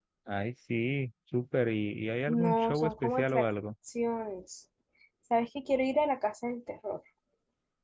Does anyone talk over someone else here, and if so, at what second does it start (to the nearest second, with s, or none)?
2 s